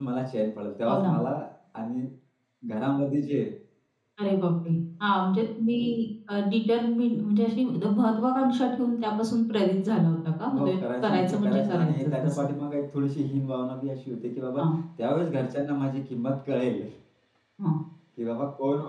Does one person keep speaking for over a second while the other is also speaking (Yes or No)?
Yes